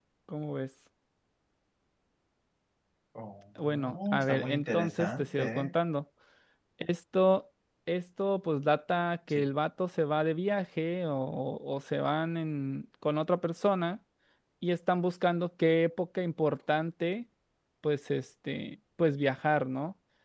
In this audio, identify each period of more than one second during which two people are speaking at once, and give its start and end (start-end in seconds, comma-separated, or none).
3.6-5.7